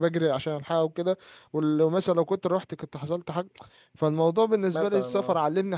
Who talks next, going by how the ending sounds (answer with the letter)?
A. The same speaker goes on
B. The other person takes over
A